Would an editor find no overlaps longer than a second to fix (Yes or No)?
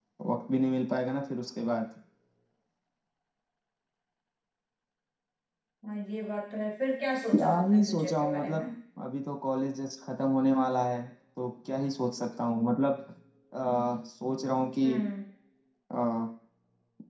No